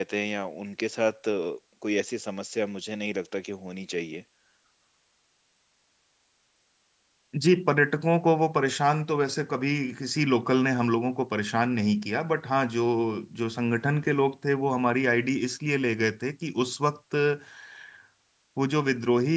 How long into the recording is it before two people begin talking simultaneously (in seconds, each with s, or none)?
none